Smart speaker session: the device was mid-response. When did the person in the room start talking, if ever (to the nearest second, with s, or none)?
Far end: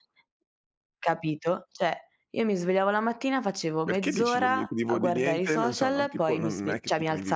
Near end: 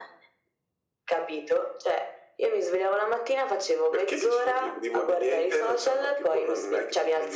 none